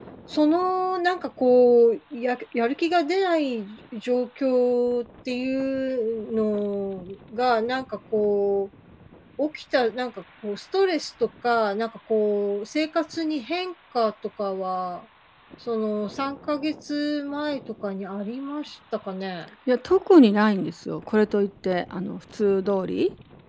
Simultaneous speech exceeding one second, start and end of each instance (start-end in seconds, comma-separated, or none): none